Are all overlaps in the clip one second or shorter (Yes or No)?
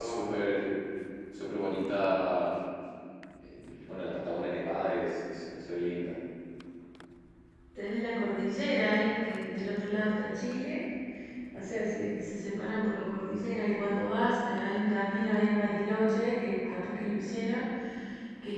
Yes